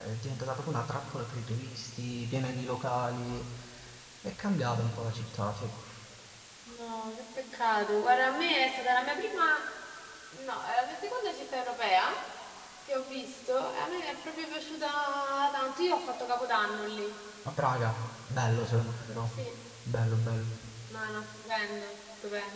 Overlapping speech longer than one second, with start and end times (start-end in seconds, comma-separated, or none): none